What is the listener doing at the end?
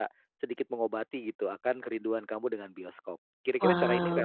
taking over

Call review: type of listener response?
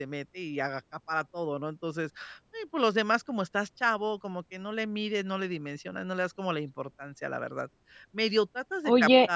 taking over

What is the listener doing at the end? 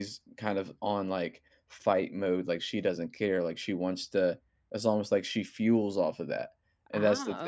listening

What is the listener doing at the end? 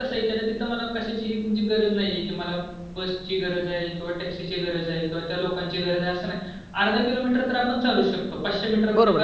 taking over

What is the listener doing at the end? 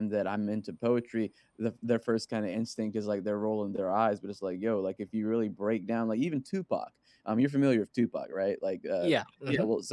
listening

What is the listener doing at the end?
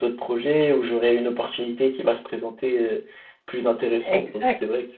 taking over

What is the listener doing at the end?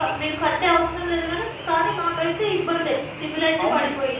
taking over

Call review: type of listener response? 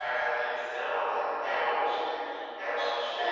taking over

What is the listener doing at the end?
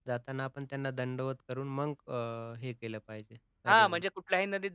taking over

